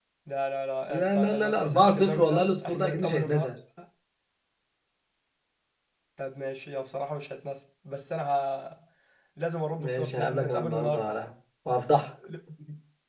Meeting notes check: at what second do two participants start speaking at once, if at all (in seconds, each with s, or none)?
0.9 s